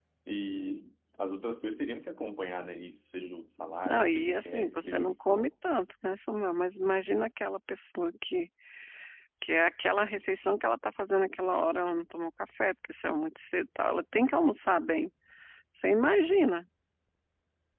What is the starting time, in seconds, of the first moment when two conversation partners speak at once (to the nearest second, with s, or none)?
4 s